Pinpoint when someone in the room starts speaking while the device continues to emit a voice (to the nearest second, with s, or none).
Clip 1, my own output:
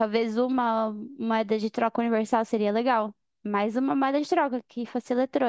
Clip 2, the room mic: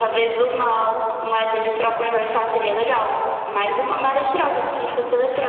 none